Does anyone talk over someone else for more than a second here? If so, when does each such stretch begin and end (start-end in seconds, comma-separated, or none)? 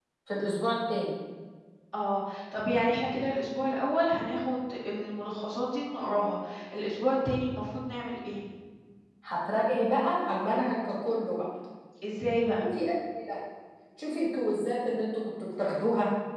none